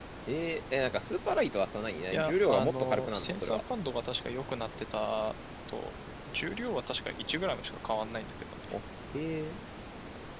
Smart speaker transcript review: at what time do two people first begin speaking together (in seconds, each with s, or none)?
2.1 s